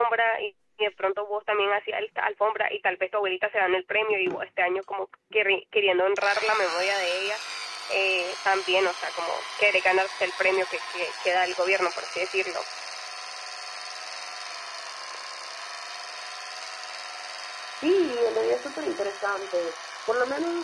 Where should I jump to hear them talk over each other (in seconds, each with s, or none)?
none